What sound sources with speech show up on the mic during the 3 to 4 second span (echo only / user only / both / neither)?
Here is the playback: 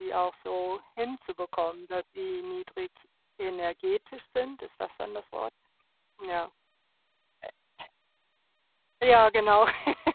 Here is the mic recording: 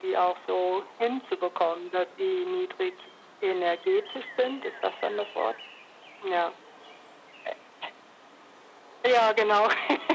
echo only